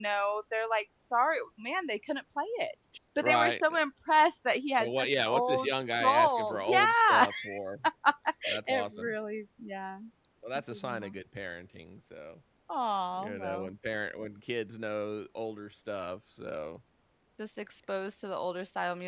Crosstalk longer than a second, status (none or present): present